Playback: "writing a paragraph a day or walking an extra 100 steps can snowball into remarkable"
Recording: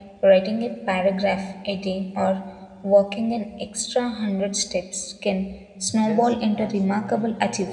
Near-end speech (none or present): present